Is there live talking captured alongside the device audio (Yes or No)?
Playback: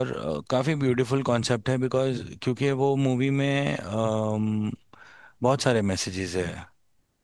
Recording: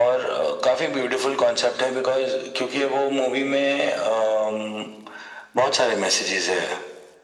No